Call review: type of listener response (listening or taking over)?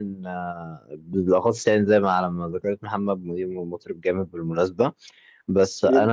listening